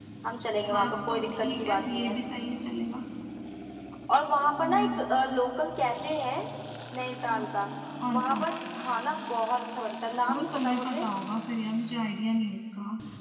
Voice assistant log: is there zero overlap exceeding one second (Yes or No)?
No